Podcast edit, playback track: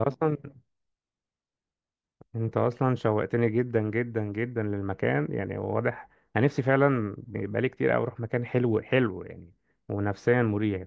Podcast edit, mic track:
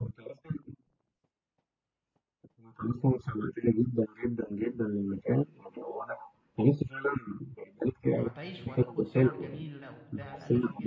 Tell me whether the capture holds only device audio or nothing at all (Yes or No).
No